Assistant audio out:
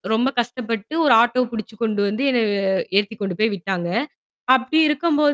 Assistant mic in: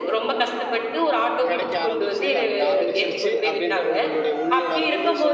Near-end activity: present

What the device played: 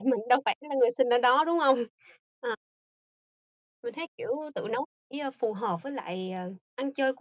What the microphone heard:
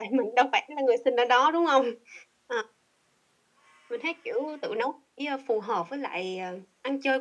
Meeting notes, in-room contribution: none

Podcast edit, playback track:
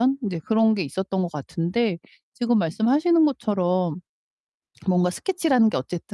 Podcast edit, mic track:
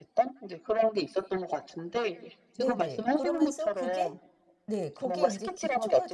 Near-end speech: present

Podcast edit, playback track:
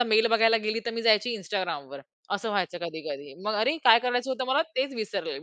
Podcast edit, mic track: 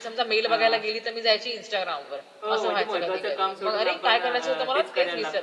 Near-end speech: present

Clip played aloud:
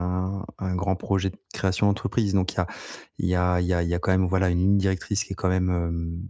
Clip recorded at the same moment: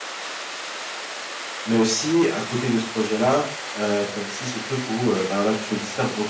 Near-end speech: present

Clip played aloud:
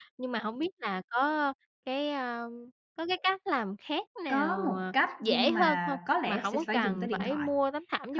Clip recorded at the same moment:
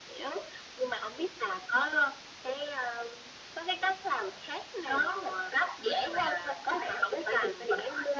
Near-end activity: none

